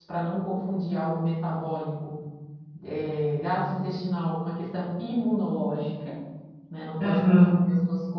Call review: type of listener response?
listening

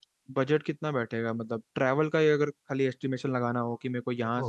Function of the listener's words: listening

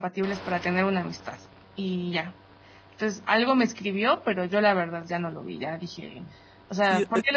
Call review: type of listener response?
taking over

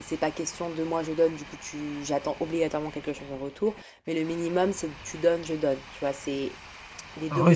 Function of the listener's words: taking over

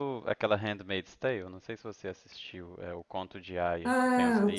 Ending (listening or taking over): taking over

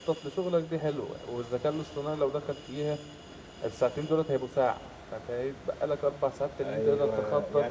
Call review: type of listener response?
taking over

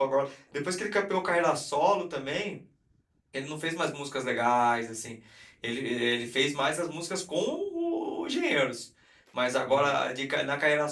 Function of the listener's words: listening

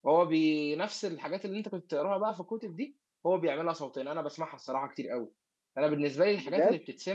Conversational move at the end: listening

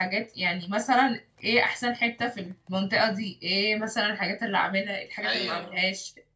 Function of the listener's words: listening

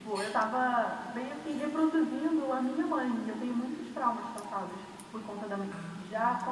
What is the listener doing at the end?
listening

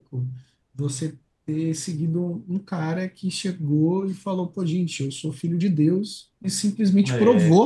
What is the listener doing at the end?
listening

